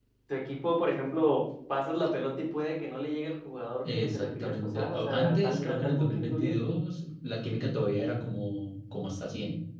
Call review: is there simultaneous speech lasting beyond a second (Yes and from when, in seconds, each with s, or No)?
Yes, from 3.8 s